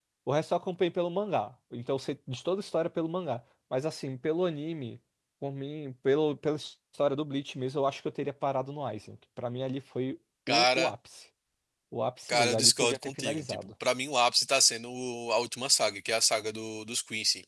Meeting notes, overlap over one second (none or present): present